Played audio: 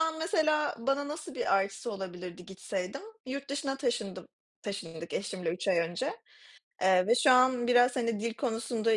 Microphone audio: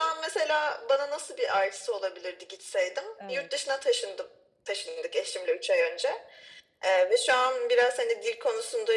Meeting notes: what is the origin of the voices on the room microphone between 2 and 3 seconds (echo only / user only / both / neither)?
echo only